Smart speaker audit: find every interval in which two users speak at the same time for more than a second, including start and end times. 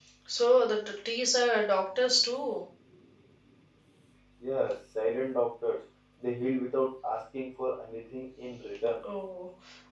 none

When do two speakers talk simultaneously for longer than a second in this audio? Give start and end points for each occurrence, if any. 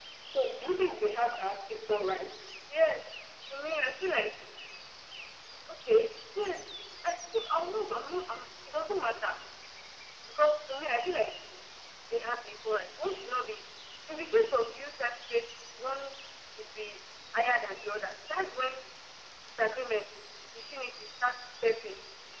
none

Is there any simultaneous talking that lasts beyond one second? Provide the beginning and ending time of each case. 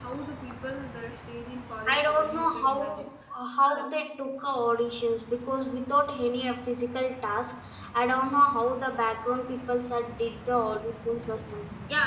1.9-3.1

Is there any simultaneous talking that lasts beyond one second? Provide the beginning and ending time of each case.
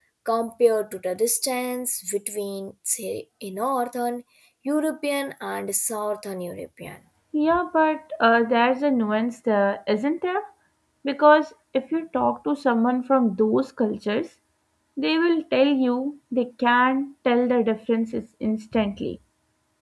none

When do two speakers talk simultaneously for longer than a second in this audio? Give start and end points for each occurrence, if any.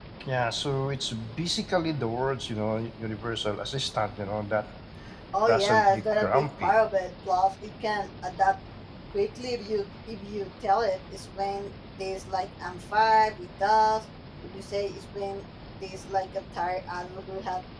5.5-6.7

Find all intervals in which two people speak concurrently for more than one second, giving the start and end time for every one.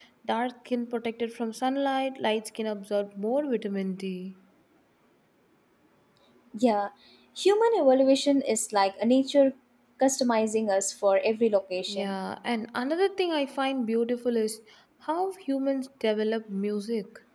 none

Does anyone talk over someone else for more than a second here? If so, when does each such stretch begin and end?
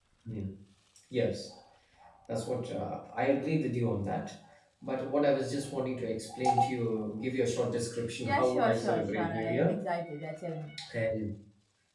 8.2-9.8

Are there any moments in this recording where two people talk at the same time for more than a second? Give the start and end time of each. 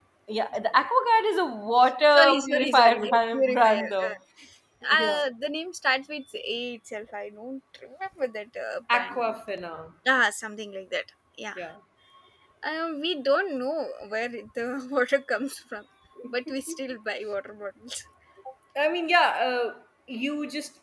2.1-4.1

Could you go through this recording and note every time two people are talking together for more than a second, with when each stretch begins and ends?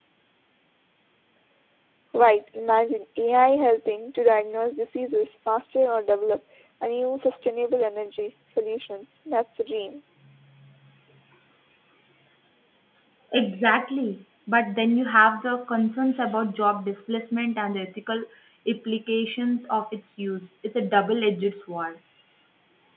none

